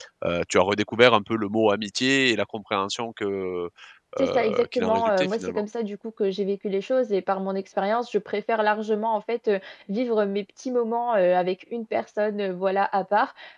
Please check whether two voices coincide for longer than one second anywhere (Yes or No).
Yes